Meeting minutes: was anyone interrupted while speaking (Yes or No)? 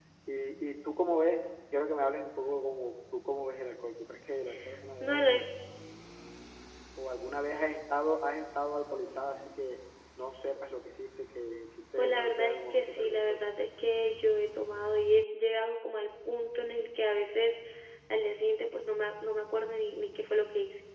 Yes